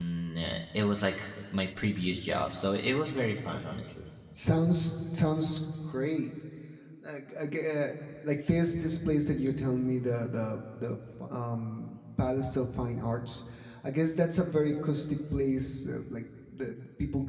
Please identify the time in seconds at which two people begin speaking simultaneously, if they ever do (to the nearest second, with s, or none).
none